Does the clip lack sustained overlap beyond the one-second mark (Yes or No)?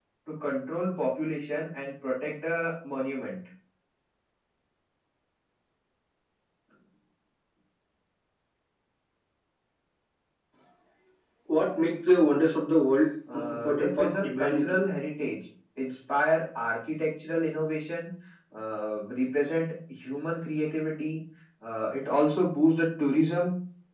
No